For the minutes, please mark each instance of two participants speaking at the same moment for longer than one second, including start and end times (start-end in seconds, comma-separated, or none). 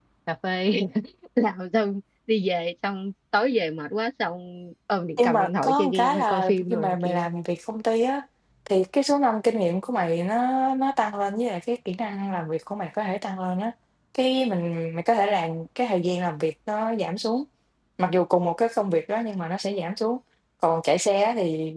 5.2-7.2